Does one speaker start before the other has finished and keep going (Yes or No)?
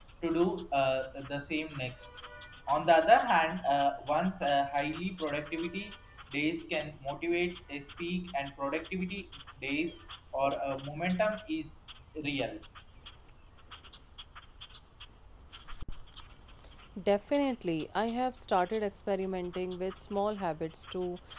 No